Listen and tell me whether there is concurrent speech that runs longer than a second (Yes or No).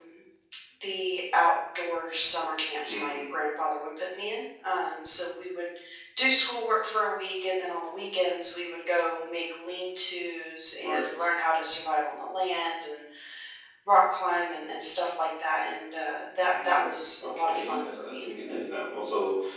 Yes